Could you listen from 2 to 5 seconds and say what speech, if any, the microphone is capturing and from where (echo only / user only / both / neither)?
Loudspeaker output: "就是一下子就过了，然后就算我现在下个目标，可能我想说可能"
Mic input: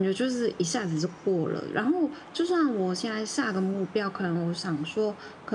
echo only